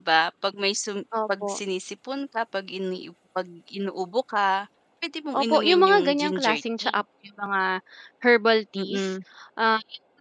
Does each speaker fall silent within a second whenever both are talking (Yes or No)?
No